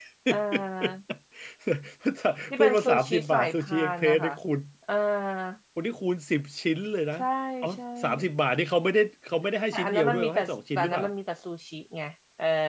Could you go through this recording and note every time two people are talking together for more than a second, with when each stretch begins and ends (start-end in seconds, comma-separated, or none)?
2.6-4.3, 9.7-11.1